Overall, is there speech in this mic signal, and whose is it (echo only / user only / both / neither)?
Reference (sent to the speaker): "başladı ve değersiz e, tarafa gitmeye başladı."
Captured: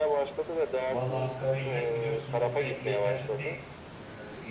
both